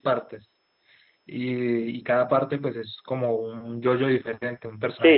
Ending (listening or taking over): taking over